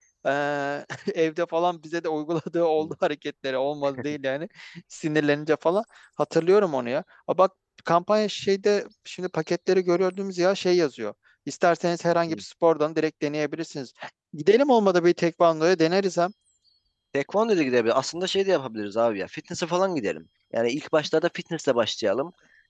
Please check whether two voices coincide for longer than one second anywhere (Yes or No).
No